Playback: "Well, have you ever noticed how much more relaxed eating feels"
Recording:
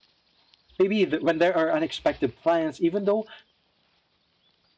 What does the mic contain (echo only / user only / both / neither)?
user only